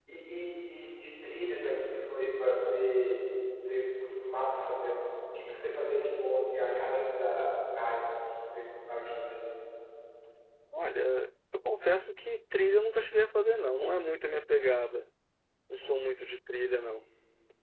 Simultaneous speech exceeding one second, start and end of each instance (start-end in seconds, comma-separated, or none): none